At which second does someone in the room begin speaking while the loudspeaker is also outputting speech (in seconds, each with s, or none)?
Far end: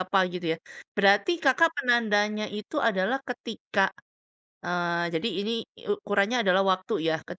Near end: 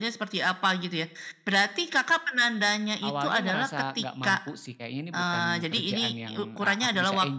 3.0 s